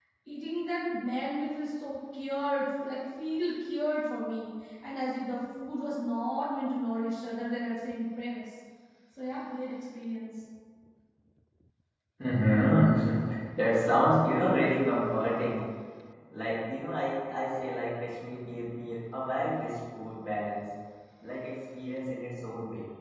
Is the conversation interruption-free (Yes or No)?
Yes